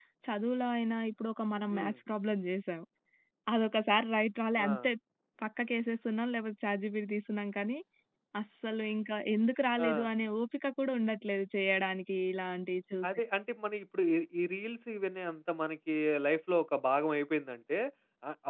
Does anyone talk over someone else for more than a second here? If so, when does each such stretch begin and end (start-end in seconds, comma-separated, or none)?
none